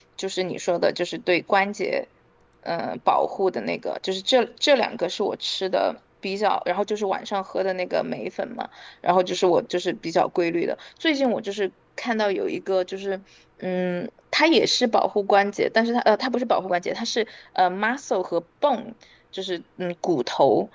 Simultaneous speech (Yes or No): No